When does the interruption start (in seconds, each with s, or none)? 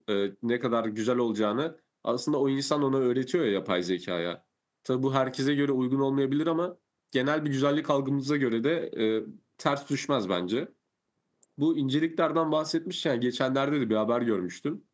none